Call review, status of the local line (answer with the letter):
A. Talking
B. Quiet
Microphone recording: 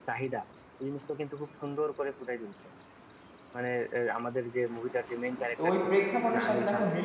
A